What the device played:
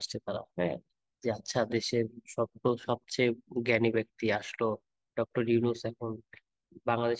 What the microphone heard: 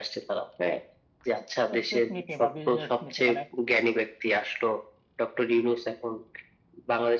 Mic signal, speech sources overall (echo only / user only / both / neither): both